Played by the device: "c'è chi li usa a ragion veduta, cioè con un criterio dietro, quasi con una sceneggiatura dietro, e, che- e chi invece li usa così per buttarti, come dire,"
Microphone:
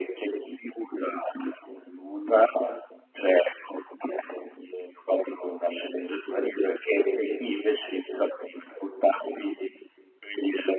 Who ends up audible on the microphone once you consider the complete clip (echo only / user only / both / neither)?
echo only